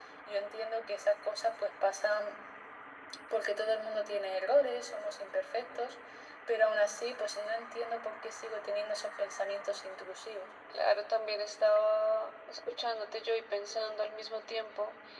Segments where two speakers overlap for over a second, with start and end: none

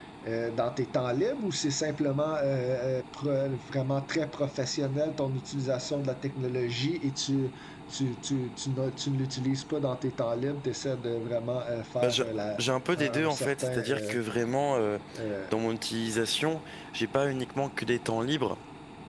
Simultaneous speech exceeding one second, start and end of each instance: 13.0-14.2

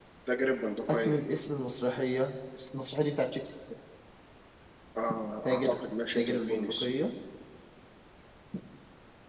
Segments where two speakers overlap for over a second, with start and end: 5.4-6.9

